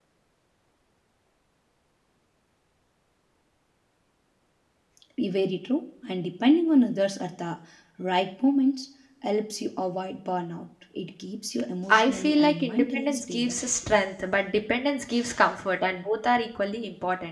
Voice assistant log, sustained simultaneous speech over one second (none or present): present